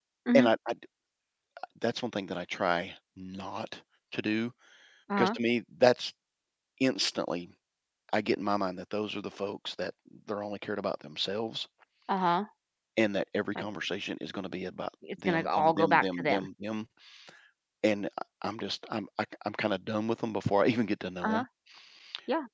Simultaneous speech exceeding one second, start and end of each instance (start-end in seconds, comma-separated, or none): 15.2-16.5